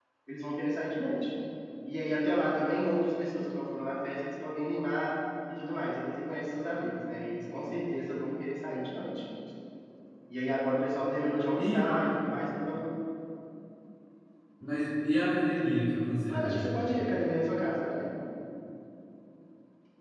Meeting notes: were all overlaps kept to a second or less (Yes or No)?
Yes